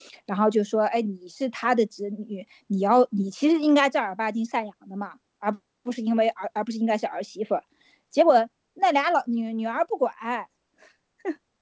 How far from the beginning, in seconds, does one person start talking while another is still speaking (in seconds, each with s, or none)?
none